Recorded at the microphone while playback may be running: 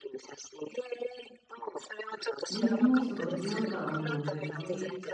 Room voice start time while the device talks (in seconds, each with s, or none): 2.5 s